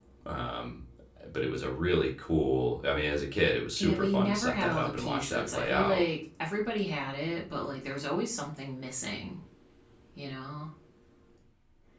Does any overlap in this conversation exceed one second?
Yes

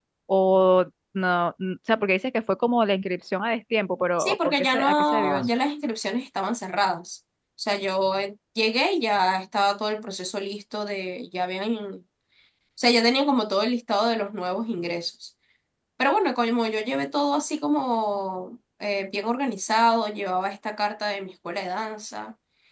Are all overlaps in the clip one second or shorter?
No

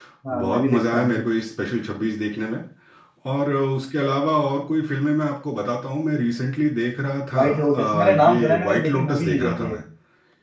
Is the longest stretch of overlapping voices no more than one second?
No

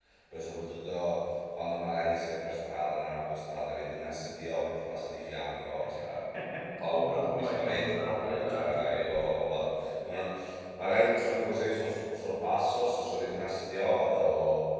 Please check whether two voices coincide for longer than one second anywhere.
Yes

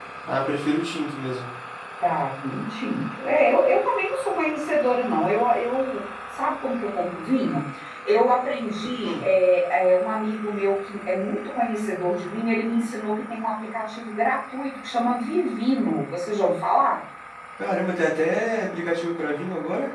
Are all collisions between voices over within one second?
Yes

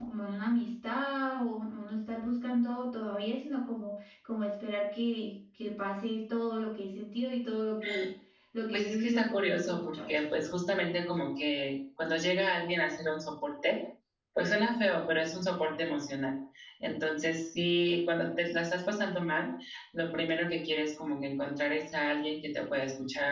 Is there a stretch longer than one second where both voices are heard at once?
Yes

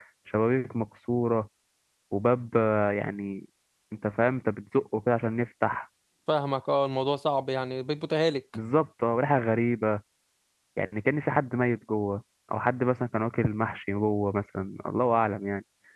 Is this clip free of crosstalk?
Yes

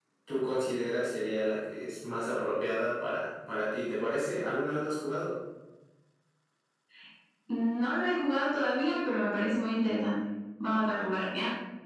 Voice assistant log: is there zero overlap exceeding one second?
Yes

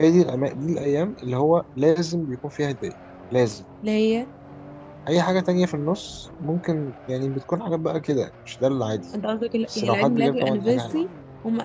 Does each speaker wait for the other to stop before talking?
No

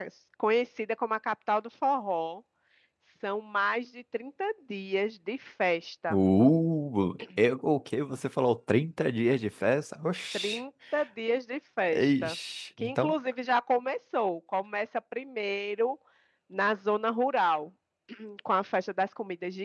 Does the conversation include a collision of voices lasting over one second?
No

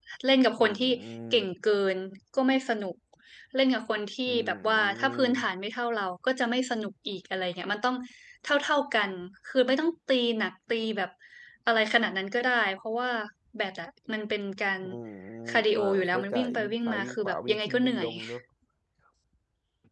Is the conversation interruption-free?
No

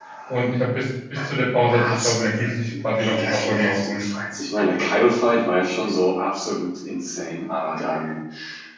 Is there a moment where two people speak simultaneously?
Yes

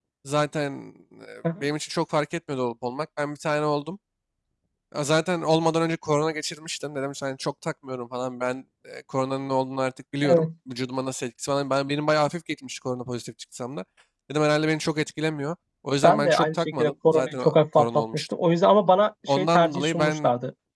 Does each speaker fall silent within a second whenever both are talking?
No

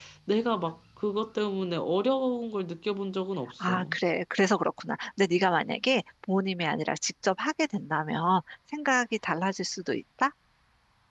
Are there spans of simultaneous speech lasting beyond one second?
No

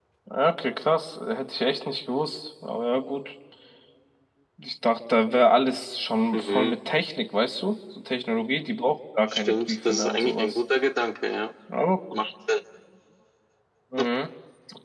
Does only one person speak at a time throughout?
No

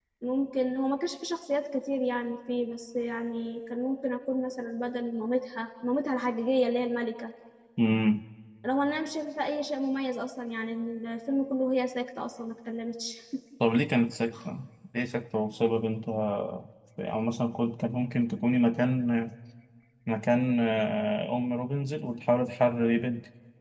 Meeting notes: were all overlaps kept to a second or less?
Yes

